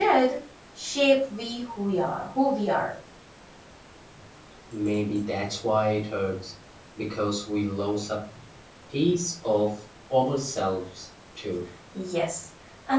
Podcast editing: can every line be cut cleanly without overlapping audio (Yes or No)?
Yes